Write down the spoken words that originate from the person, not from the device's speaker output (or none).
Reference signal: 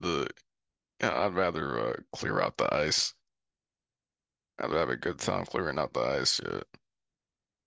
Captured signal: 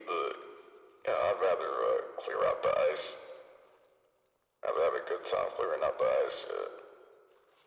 none